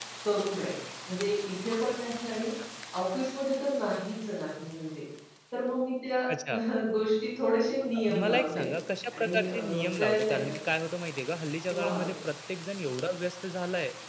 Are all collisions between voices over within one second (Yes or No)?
No